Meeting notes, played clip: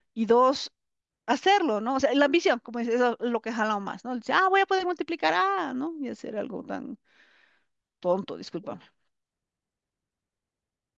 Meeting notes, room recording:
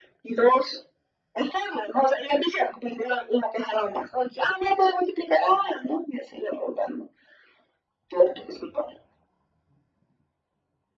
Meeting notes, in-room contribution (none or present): none